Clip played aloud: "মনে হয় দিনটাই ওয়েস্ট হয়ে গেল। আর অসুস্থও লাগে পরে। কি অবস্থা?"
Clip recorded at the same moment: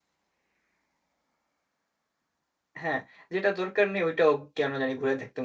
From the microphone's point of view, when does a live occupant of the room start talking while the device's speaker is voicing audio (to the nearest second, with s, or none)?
3 s